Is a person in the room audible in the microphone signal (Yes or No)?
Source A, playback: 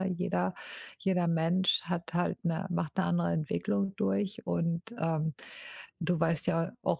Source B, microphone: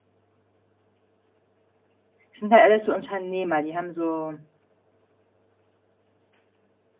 Yes